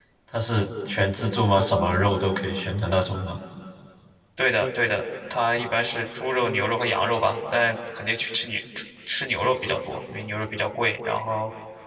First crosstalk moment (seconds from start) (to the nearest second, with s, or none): none